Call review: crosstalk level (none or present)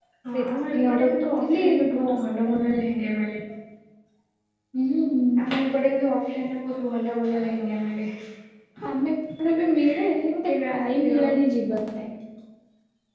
present